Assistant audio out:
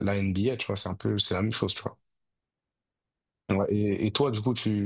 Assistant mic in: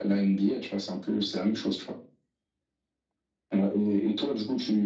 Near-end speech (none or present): none